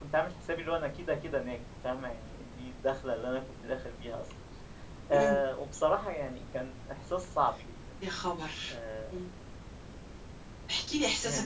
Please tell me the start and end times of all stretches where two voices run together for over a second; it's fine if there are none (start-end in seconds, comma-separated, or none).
none